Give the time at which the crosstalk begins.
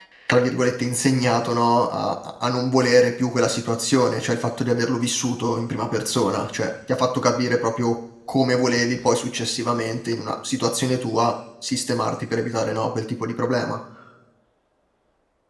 none

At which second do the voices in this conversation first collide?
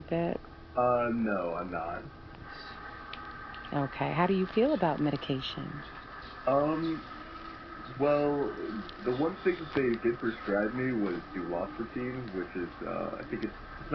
none

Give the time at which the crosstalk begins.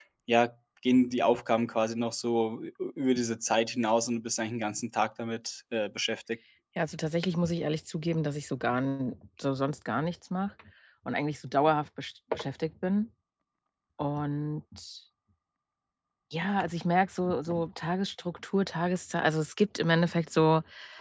none

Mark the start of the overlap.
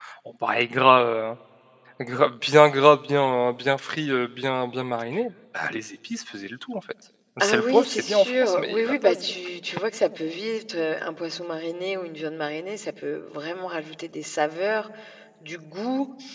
7.4 s

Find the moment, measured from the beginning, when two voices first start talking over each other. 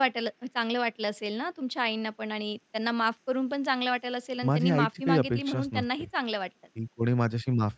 4.4 s

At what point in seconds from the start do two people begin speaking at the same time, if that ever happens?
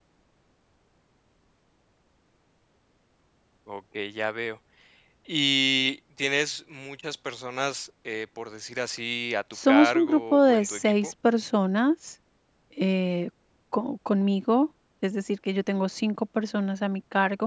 9.5 s

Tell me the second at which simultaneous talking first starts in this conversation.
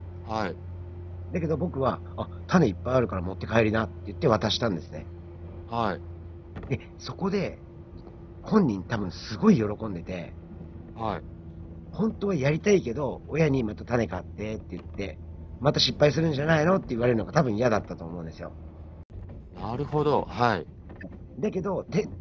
none

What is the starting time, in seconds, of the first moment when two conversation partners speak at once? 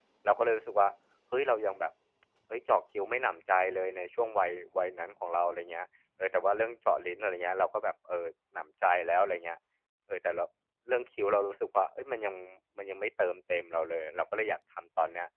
none

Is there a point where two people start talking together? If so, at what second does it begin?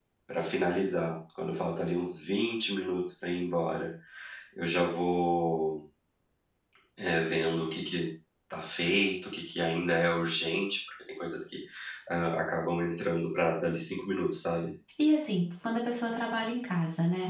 none

